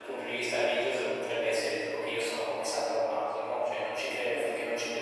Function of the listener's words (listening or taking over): listening